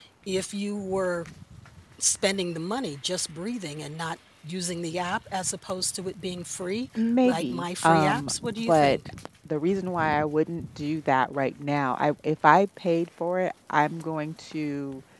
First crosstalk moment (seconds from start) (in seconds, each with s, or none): 7.0 s